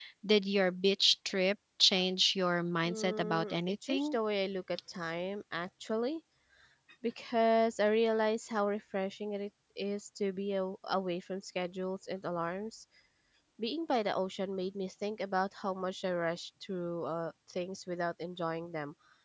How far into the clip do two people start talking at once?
2.8 s

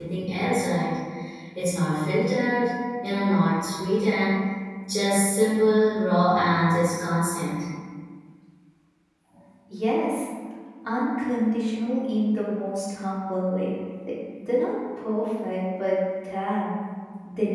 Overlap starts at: none

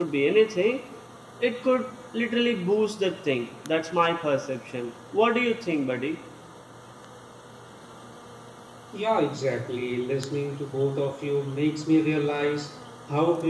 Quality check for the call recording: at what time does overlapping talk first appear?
none

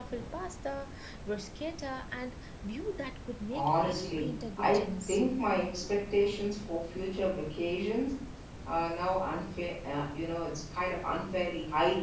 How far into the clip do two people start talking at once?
3.5 s

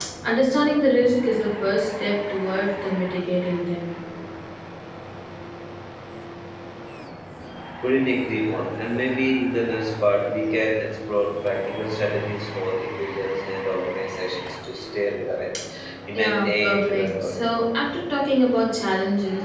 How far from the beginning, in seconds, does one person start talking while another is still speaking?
16.1 s

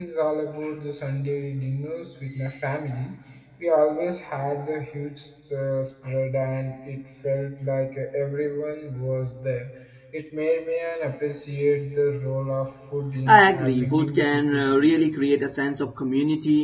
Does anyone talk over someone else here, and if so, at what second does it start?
13.3 s

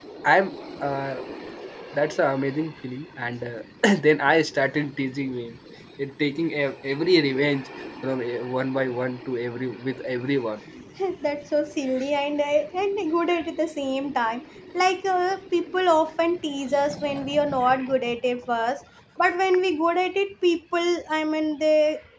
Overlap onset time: none

